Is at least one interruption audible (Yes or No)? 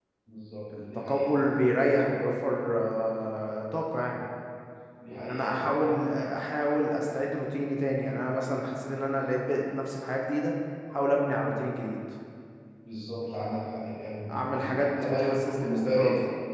Yes